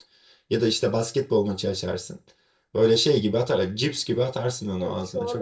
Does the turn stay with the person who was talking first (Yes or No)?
No